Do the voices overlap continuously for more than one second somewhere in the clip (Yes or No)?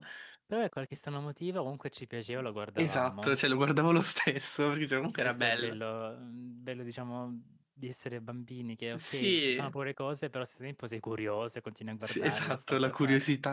Yes